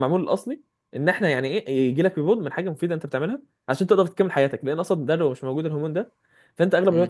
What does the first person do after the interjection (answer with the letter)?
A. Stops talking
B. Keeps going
B